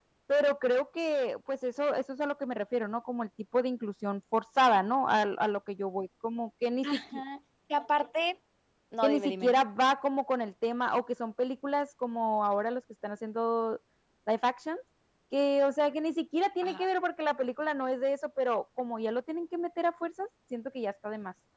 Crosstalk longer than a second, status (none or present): none